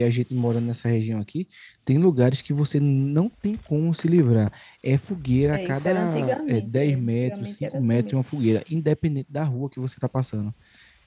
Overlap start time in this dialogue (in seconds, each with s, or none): 5.5 s